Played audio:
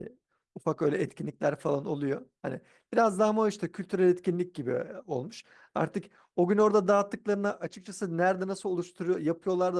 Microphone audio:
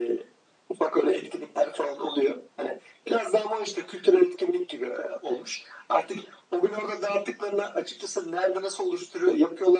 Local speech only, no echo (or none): none